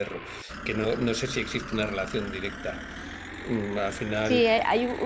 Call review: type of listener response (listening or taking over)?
taking over